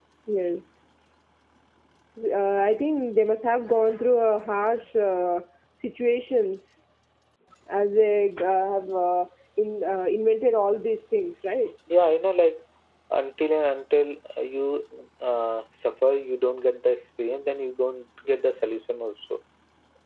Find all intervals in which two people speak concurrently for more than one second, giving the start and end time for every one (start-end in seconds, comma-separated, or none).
none